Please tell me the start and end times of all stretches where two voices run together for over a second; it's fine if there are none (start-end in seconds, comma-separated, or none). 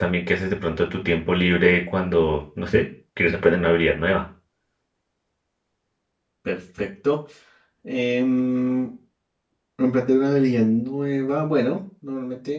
none